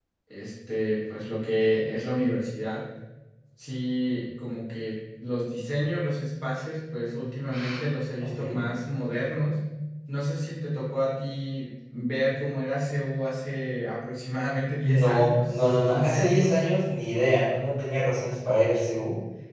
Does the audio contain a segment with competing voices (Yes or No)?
Yes